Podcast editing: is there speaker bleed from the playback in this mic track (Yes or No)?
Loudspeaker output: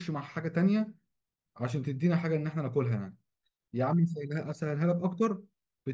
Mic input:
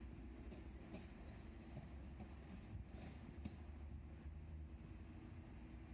No